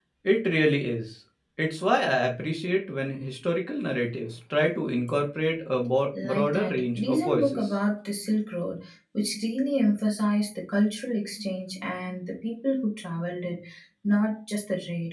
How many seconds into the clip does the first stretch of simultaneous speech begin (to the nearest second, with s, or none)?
6 s